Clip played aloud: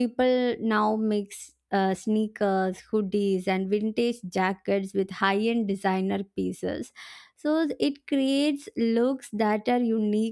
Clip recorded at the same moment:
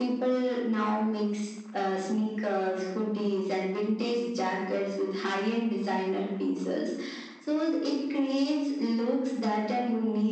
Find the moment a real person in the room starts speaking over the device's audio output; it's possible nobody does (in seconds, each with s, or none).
none